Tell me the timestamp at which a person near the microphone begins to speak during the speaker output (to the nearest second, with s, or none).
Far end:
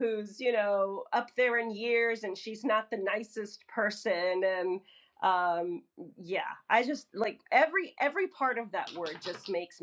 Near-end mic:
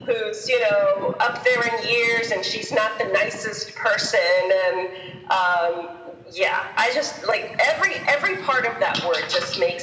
none